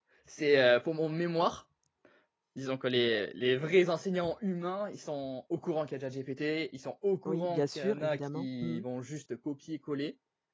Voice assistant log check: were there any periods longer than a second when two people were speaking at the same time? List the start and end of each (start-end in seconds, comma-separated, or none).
7.3-8.8